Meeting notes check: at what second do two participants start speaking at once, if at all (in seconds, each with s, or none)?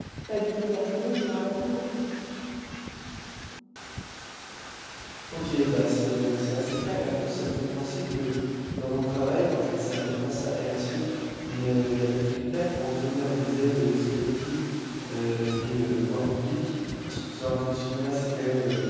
none